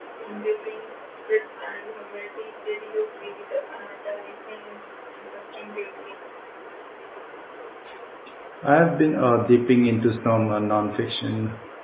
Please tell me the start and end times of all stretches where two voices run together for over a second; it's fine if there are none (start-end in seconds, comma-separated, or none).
none